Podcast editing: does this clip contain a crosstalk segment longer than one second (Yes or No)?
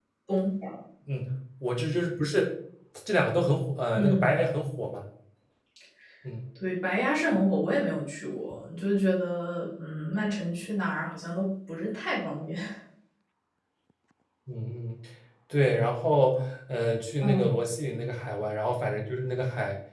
No